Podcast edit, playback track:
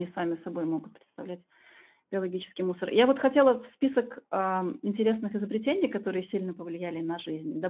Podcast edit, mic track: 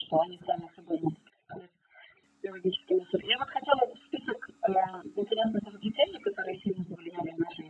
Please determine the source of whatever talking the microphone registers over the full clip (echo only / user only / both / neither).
echo only